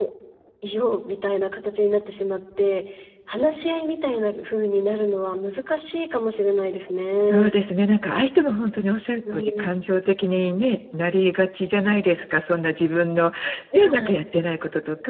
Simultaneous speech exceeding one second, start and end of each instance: none

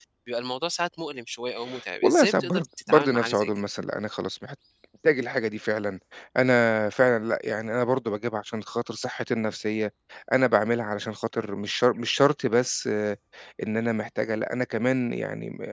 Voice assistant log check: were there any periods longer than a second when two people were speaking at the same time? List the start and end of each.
2.0-3.5

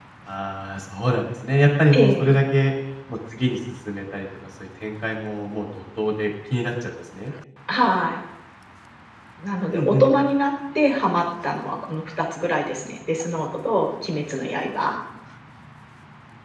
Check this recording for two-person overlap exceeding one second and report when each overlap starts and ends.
none

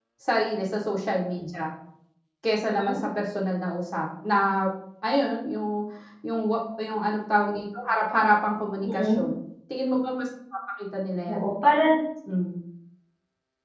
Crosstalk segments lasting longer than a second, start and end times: none

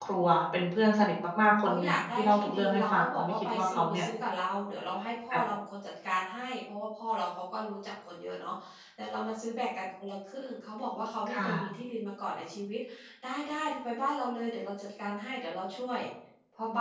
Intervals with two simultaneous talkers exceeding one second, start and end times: 1.6-4.0

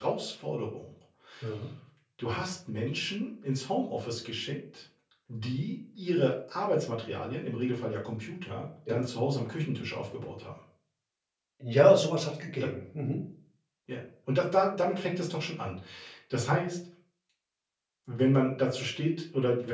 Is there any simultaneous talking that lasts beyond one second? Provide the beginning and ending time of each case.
none

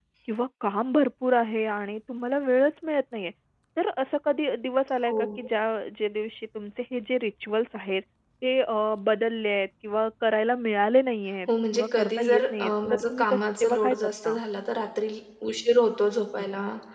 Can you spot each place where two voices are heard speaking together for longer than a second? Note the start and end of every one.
11.5-14.3

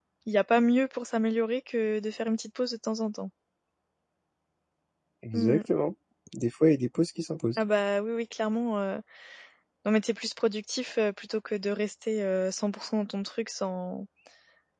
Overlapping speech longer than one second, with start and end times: none

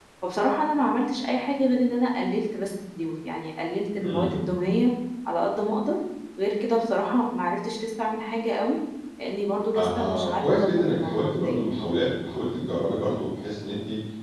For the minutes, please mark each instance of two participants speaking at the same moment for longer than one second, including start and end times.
9.8-11.8

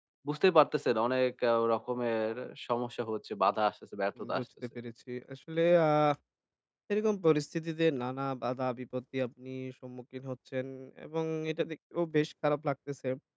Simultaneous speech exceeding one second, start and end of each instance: none

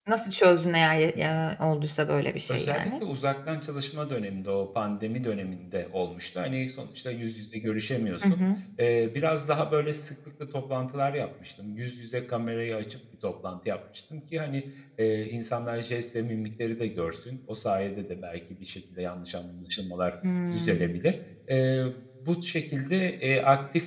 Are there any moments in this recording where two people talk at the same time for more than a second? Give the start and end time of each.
none

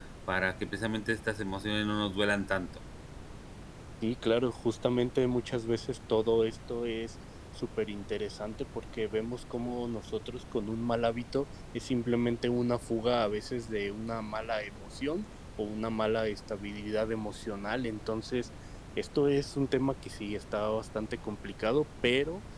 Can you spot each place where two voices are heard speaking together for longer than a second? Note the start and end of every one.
none

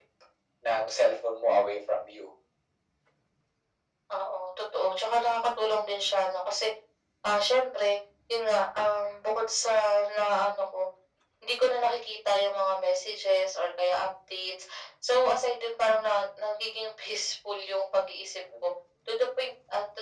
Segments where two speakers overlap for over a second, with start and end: none

